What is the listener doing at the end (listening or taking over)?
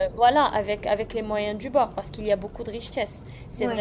listening